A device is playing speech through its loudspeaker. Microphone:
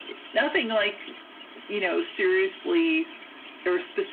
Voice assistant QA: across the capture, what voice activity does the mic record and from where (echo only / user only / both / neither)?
echo only